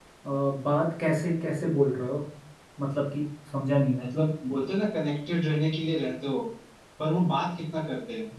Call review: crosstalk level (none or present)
none